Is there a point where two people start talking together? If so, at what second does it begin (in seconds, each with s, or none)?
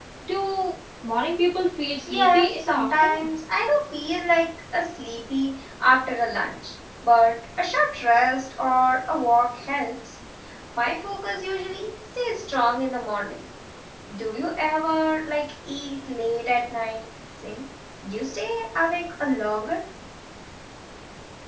2.1 s